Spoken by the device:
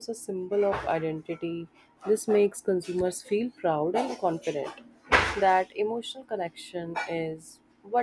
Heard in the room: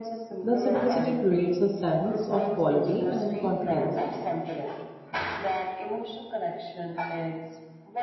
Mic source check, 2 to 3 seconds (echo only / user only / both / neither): both